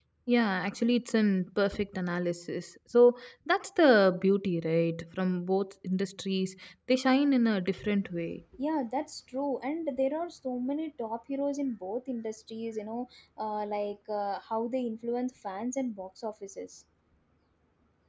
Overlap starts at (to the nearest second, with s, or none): none